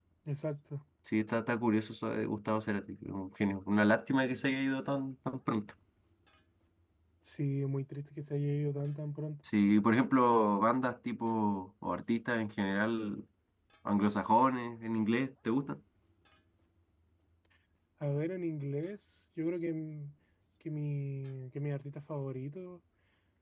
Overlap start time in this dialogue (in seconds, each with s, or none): none